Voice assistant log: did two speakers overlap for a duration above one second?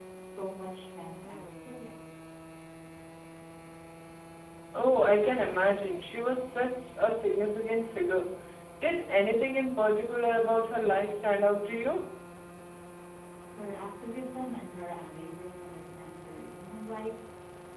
No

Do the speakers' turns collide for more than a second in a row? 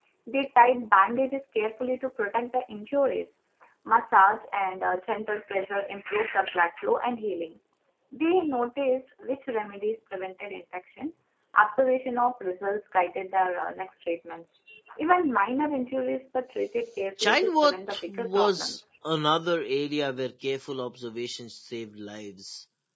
Yes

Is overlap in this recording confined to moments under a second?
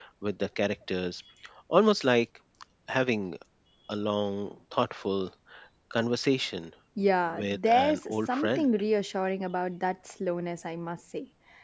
No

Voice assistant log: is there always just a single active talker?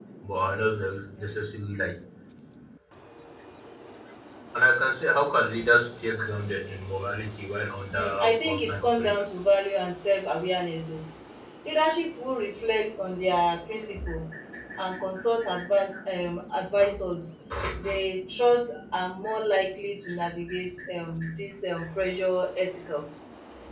No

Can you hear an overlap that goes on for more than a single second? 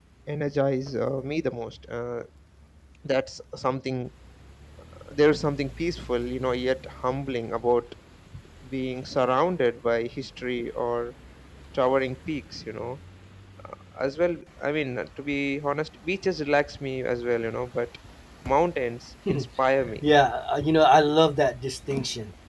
No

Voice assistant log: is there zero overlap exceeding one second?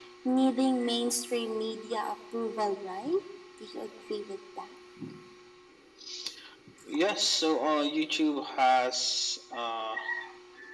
Yes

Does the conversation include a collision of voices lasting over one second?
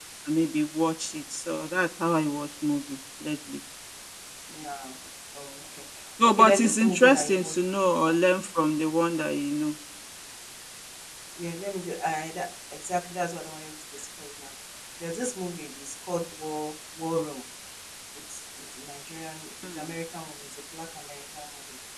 Yes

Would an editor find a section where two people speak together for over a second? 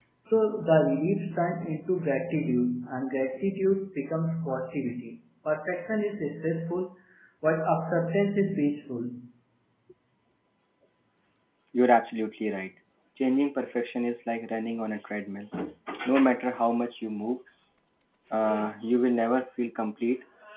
No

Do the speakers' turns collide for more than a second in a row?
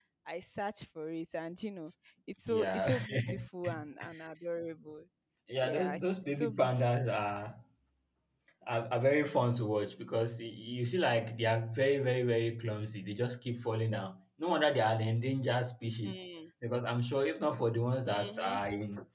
Yes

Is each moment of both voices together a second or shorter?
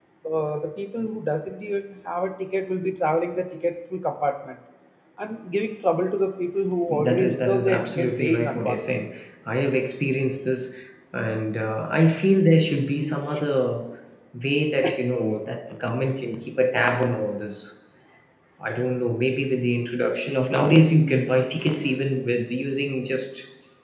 No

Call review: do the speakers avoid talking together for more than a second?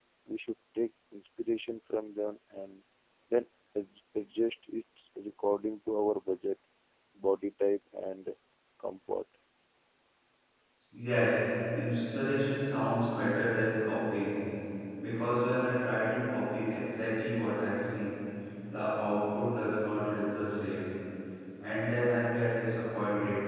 Yes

